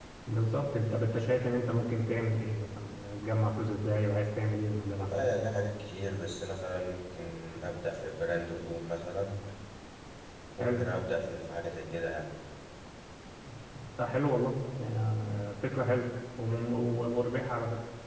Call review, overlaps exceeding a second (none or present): none